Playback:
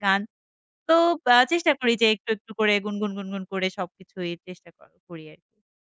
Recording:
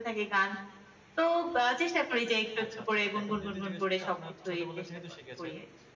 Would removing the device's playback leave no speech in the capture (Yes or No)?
No